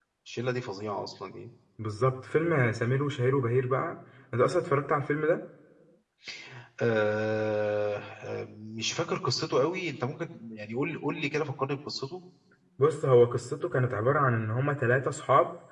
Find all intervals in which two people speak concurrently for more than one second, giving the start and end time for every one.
none

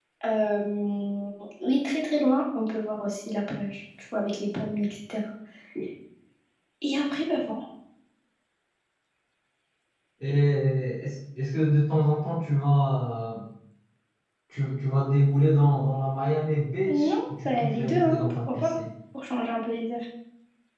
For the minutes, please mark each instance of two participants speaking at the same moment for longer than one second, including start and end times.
16.9-18.8

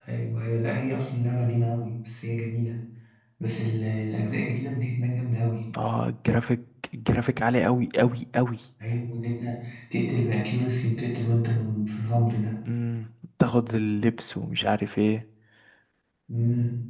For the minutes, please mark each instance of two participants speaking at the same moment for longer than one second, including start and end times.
none

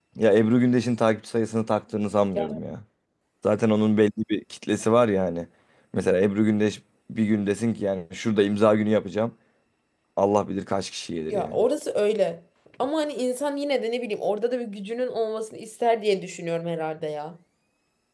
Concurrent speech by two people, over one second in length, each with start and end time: none

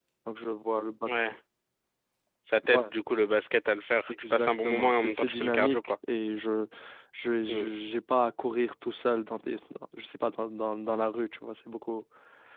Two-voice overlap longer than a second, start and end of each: 4.3-5.8

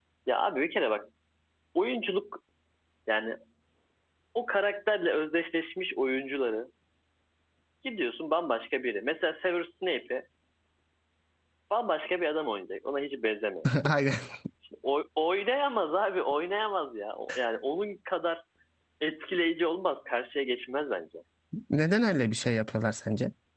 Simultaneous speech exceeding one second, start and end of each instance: none

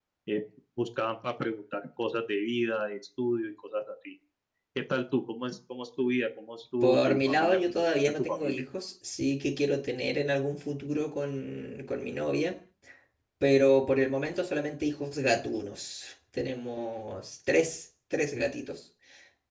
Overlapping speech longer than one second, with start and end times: 6.8-8.6

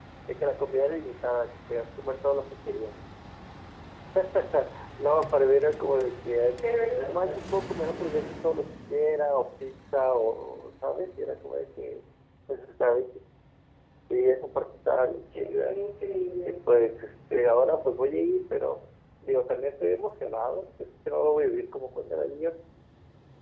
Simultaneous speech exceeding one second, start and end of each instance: none

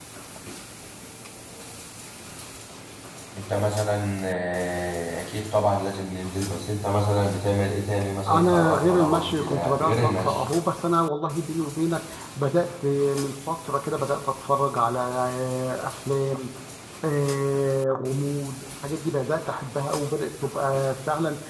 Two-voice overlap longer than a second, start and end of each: 8.3-10.4

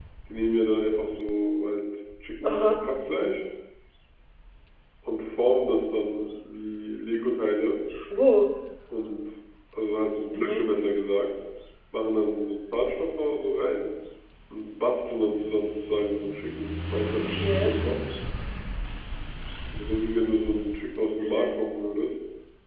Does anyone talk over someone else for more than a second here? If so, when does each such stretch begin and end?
none

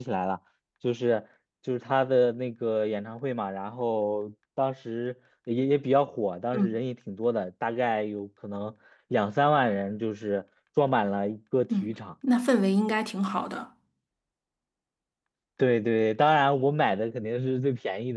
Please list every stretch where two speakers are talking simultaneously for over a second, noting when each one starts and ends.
none

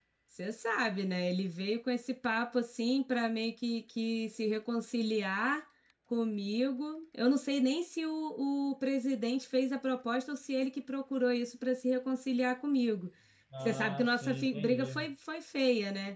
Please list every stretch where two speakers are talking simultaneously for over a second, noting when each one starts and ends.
13.7-15.1

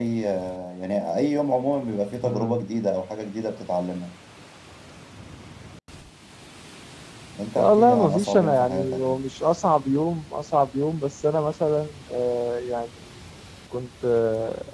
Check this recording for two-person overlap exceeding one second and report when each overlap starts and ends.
7.6-9.1

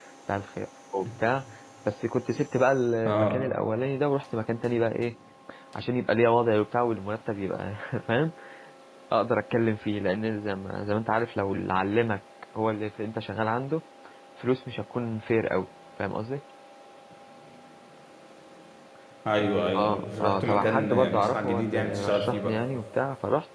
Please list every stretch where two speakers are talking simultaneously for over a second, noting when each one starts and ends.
19.8-22.6

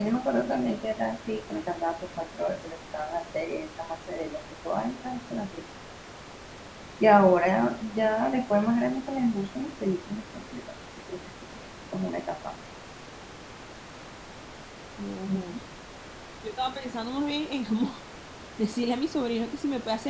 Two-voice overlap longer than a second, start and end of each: none

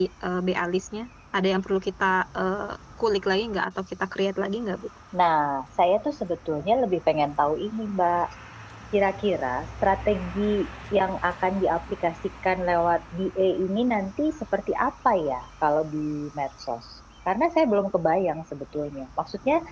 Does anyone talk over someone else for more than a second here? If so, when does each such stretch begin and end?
none

